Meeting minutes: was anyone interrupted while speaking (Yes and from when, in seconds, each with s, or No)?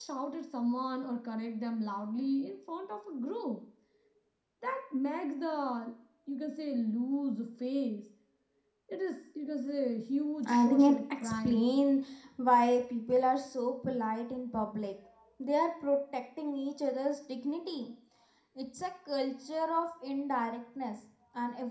Yes, from 10.4 s